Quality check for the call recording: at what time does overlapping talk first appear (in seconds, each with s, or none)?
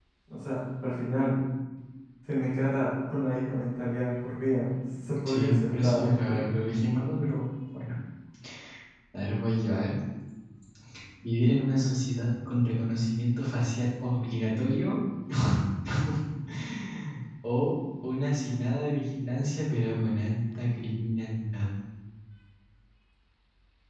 5.2 s